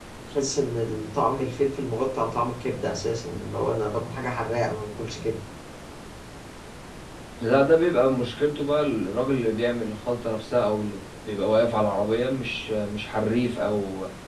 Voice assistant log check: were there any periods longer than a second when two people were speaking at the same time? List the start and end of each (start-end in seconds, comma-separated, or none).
none